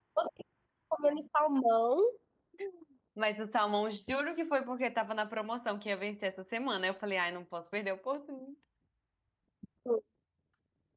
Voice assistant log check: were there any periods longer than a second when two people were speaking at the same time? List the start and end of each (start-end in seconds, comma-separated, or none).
none